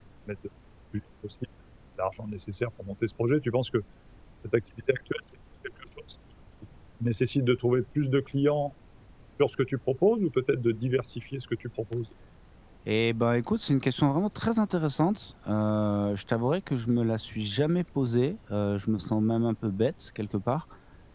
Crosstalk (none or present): none